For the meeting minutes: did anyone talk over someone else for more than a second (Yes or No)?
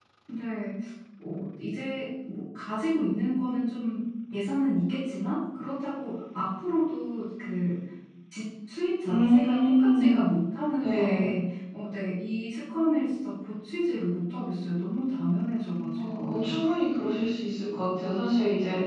Yes